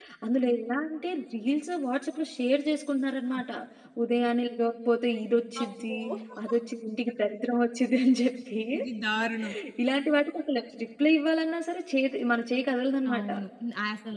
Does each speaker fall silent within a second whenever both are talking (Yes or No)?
Yes